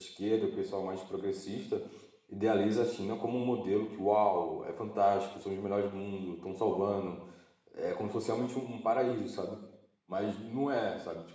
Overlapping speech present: No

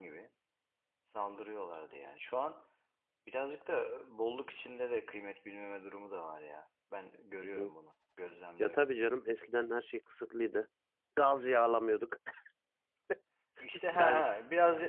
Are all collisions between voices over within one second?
Yes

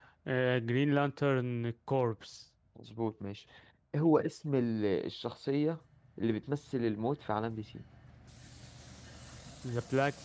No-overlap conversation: Yes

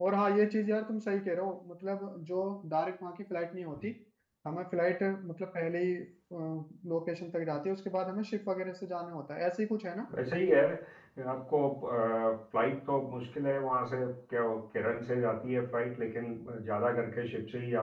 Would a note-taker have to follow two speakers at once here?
No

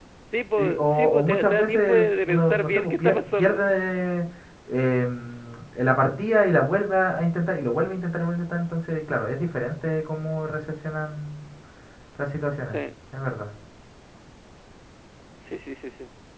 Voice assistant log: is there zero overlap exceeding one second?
No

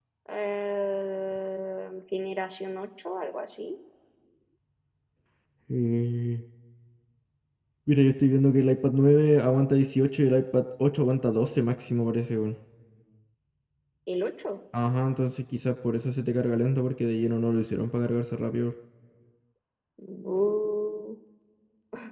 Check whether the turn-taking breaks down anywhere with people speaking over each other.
No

